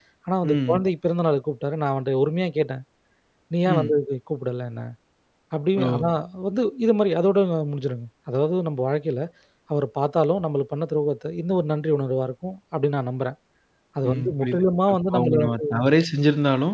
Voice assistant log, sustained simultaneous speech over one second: present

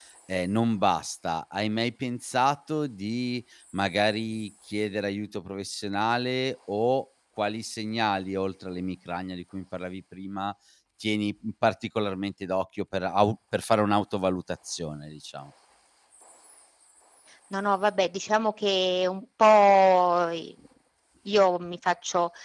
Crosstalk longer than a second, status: none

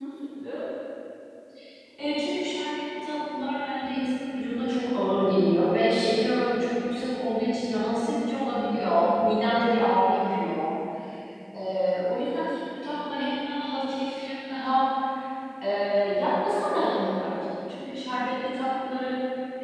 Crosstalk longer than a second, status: none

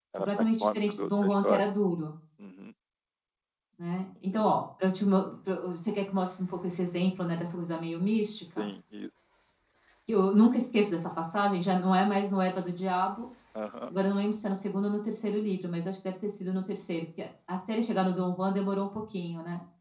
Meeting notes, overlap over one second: present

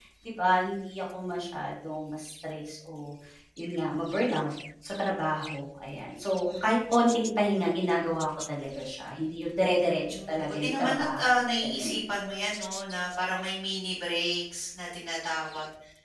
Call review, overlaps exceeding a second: present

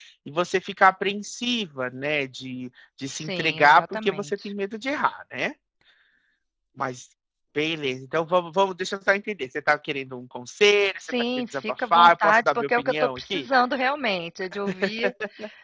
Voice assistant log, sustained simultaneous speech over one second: present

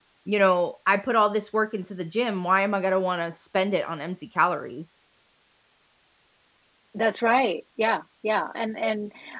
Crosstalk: none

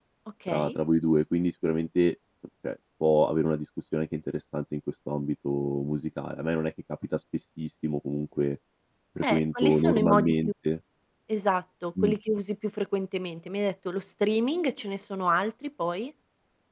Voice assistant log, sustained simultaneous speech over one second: present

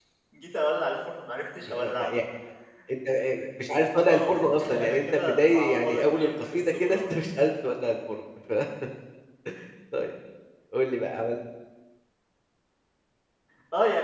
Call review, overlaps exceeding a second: present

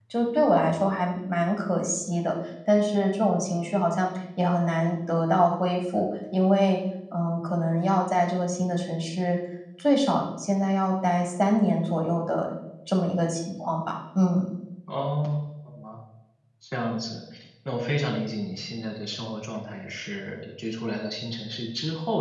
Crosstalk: none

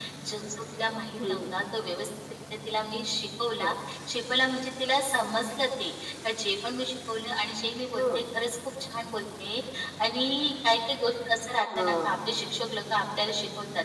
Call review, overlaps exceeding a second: none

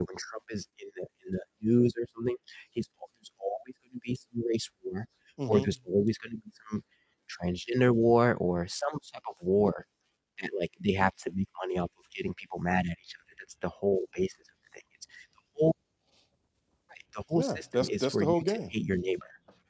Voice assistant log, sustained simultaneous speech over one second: present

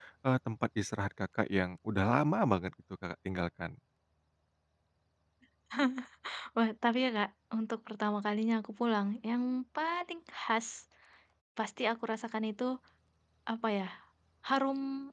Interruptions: none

